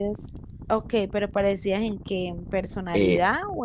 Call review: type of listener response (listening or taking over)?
taking over